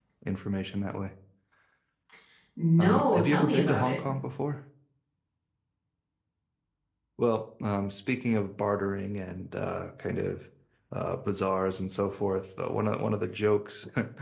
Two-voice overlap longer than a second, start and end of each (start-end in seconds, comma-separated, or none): 2.8-4.0